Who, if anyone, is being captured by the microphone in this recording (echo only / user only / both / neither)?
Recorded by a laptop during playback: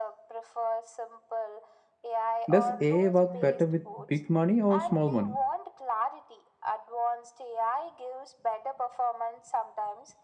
both